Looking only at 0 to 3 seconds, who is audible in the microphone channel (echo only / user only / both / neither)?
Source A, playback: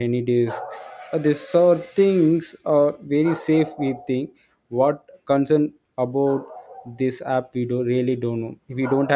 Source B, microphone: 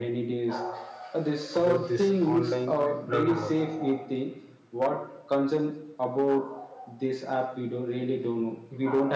both